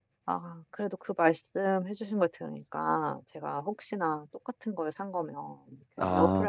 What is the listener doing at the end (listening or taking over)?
listening